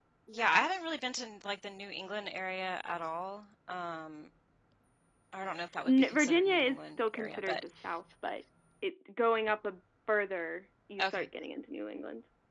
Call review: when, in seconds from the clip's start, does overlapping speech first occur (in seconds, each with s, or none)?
5.9 s